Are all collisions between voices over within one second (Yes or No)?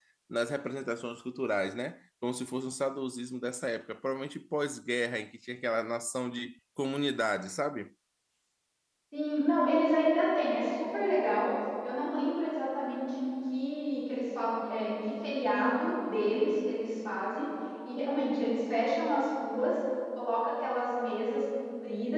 Yes